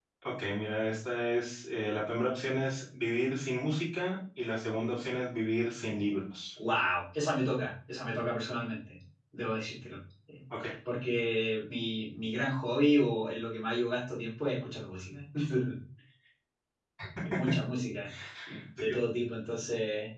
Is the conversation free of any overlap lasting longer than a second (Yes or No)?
Yes